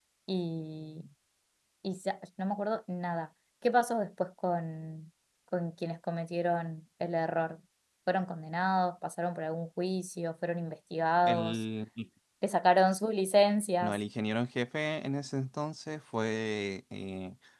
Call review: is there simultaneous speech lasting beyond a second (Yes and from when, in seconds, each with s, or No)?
No